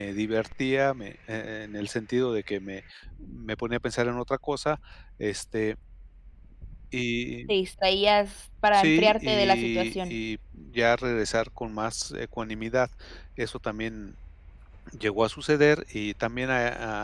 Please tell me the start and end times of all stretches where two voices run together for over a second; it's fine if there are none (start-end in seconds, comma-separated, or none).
8.7-10.1